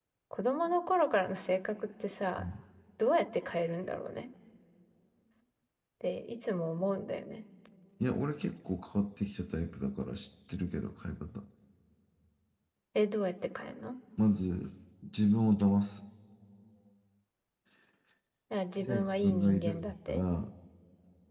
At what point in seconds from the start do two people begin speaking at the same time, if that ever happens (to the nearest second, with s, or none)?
19 s